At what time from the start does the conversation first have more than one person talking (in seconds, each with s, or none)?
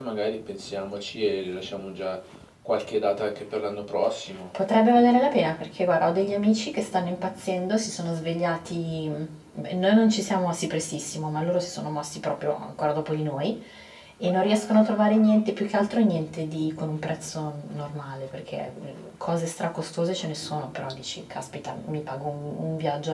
none